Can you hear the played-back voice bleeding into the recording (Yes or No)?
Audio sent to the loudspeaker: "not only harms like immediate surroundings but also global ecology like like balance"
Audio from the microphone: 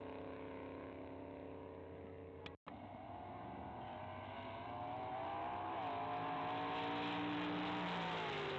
No